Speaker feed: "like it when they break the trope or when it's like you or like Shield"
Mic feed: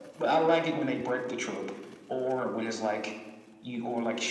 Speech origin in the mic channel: echo only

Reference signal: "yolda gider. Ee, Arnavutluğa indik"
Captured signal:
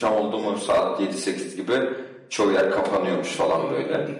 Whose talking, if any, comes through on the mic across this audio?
both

